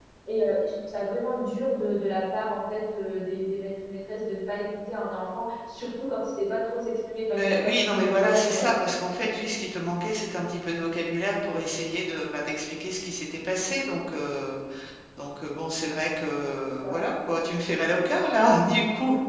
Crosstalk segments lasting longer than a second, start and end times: 7.3-8.7

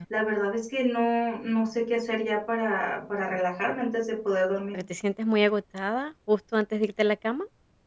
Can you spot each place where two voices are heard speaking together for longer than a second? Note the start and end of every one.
none

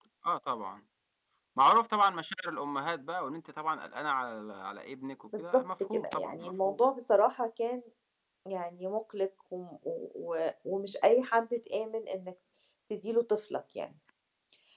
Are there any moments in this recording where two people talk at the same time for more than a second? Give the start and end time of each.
5.4-6.8

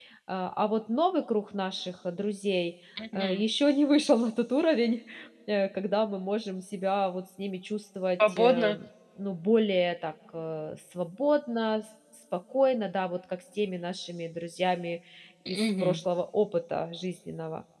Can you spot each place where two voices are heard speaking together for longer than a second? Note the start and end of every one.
none

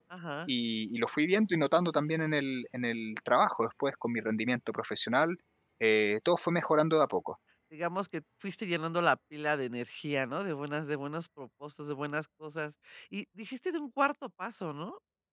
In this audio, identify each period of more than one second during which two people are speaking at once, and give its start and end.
none

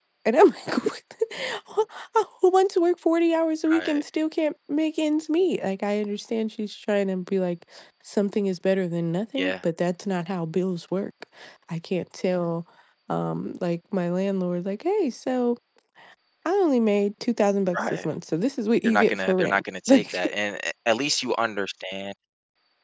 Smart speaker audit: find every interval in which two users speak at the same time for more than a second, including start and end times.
18.8-20.2

